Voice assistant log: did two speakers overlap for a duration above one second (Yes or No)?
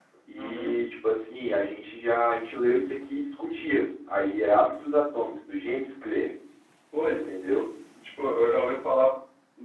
No